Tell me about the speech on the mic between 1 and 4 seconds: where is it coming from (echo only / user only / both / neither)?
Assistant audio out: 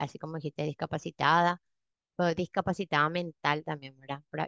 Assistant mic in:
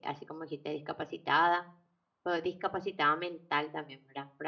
echo only